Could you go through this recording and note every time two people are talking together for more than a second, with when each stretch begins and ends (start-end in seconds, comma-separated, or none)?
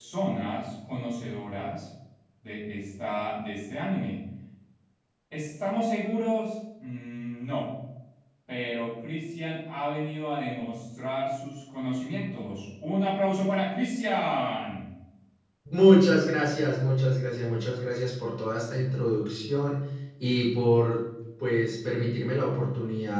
none